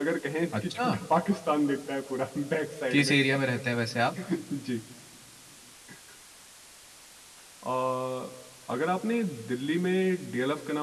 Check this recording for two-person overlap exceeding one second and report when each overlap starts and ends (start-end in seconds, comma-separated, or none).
none